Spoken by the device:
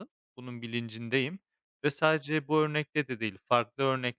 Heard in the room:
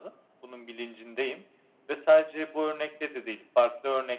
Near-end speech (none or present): none